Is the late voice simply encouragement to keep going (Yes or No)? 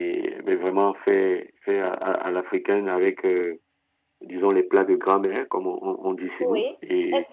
No